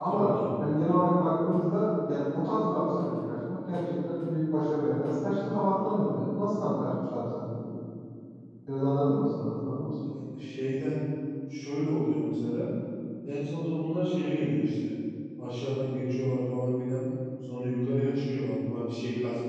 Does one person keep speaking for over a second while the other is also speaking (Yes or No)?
No